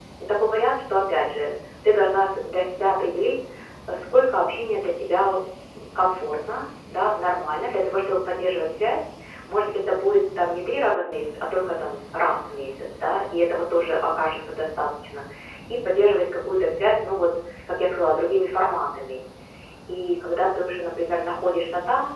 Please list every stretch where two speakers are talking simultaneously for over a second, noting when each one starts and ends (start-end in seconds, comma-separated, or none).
none